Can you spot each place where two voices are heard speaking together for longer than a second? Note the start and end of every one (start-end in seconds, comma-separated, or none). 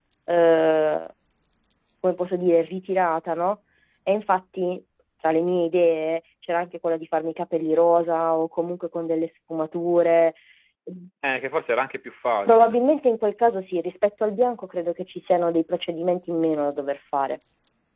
none